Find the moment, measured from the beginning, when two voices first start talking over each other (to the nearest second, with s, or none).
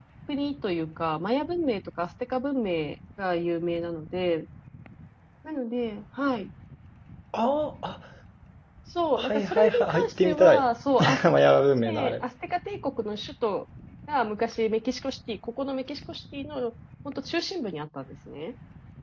9 s